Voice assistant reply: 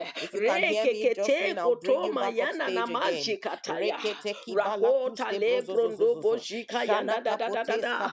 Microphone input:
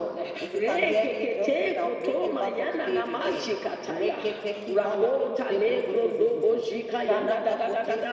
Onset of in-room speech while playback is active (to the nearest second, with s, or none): none